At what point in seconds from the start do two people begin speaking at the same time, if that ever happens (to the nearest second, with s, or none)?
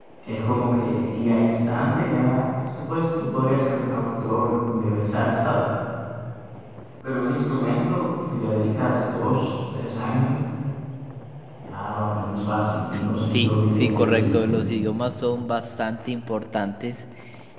13 s